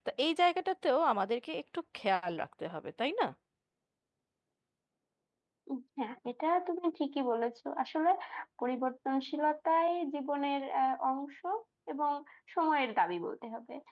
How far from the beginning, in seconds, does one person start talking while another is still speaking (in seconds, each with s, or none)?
none